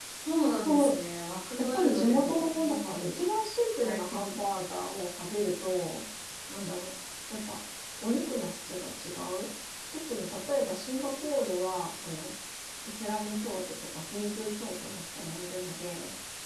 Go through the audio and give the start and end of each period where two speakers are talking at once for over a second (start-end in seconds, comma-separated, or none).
1.7-3.3